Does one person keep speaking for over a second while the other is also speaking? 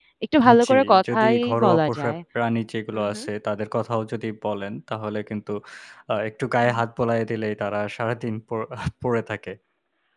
Yes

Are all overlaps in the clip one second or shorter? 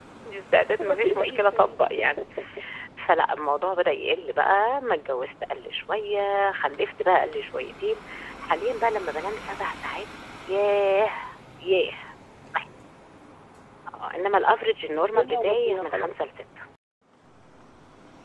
No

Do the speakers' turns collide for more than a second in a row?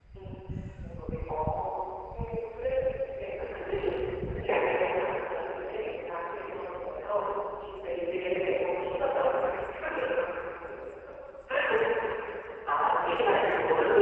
Yes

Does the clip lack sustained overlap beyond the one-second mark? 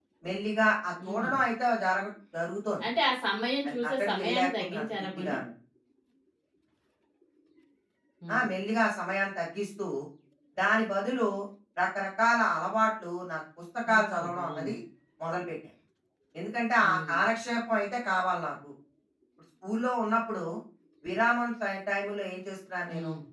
No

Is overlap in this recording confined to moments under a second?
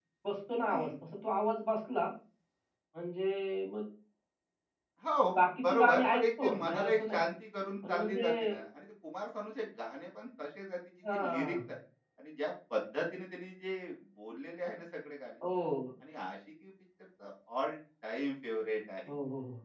No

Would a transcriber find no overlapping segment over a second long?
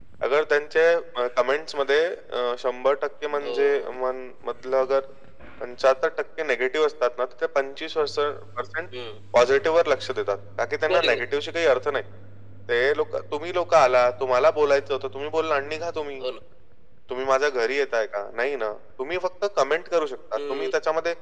Yes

